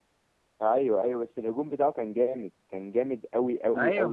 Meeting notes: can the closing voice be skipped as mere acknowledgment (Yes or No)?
No